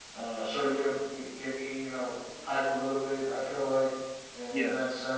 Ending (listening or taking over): listening